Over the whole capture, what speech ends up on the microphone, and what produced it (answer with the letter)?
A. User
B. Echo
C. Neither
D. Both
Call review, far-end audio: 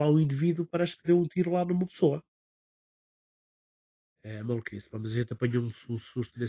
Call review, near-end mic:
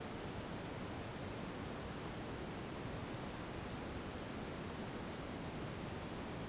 C